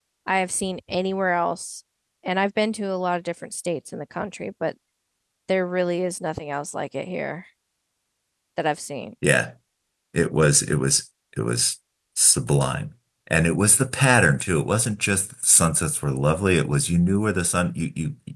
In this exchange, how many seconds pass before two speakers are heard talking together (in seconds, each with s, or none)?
none